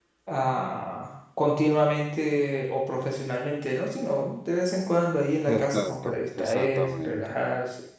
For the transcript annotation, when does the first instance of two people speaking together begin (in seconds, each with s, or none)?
5.5 s